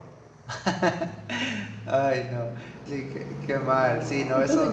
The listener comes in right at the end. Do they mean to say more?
Yes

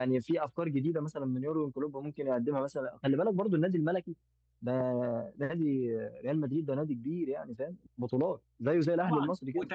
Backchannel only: No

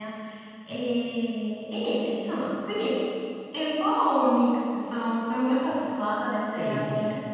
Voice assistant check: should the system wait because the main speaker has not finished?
No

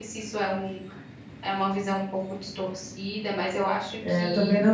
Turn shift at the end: Yes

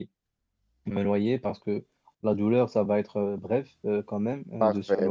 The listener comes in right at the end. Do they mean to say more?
Yes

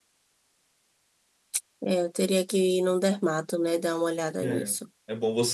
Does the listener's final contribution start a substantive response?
Yes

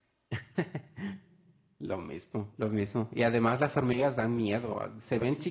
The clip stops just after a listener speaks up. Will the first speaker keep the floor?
Yes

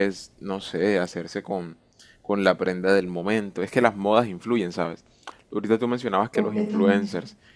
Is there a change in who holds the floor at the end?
No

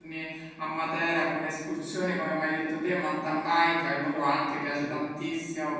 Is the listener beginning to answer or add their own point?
No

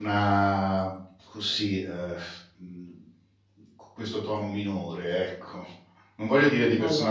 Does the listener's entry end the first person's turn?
No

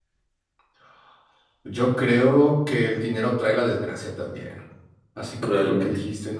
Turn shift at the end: No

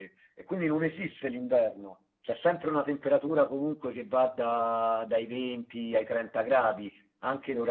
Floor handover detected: No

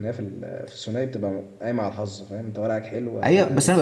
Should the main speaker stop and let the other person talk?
Yes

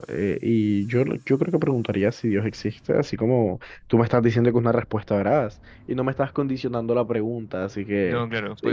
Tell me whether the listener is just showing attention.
No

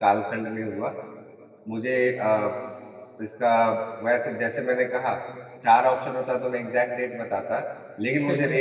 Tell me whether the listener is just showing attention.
Yes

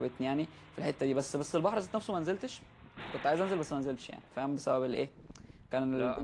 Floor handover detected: Yes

